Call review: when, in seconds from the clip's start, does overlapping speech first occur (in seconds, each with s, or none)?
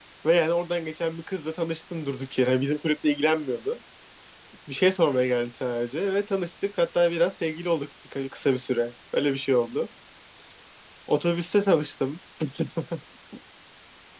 none